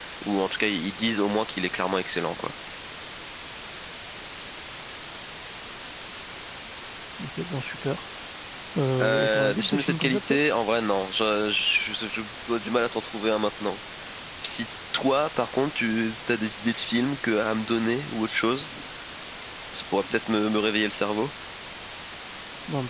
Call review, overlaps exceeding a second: present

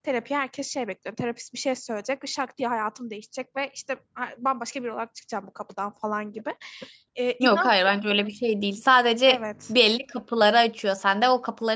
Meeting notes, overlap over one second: none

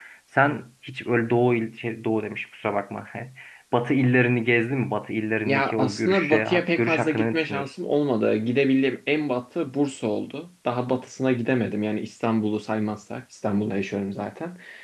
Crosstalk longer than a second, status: present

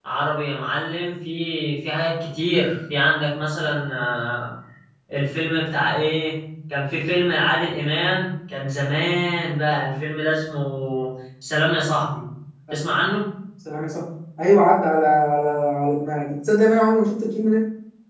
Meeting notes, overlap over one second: none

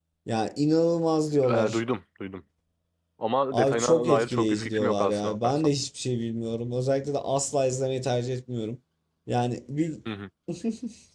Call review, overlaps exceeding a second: present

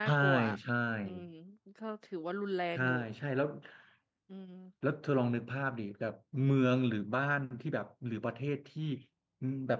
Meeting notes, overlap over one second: none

